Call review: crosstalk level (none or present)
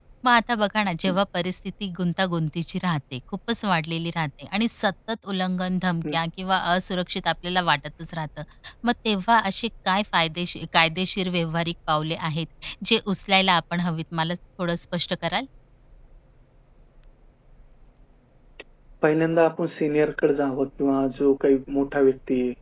none